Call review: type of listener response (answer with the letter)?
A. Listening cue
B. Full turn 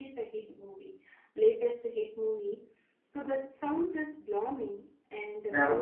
A